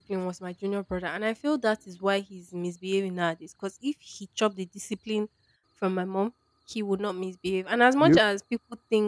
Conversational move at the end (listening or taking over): listening